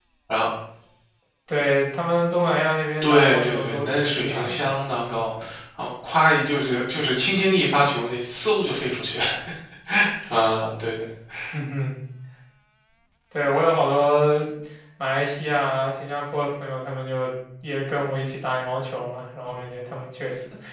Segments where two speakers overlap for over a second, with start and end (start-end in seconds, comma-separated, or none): 3.0-4.6